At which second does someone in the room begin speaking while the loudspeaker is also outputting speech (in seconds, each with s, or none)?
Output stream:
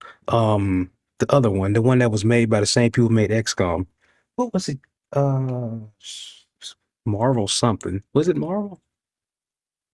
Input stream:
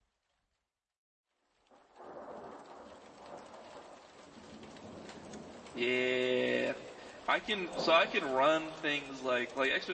5.7 s